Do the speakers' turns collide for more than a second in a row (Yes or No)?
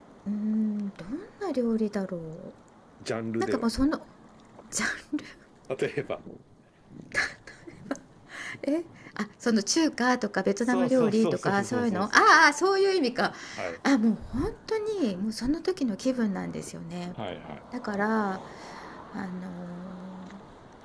Yes